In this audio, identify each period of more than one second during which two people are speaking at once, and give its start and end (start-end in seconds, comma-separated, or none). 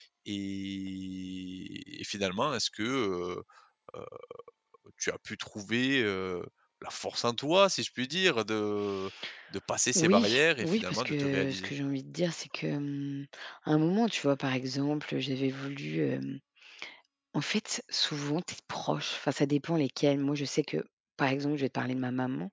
9.9-11.7